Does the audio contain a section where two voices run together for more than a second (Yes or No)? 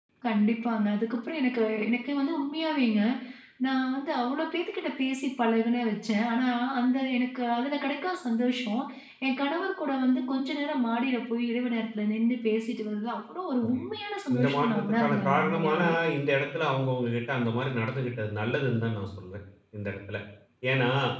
Yes